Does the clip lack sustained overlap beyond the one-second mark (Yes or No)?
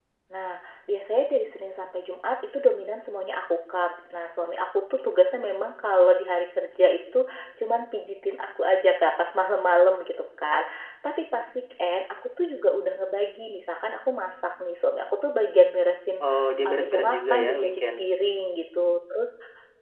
No